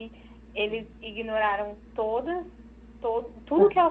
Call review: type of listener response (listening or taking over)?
listening